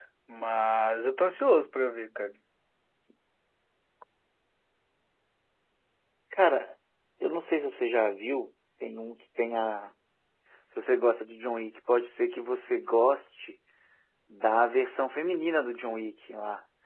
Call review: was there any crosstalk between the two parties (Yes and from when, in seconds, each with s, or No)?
No